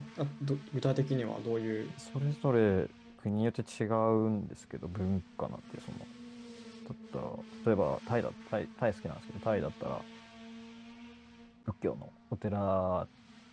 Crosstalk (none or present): none